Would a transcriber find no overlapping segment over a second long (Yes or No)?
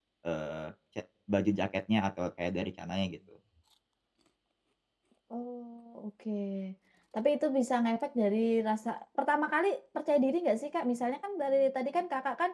Yes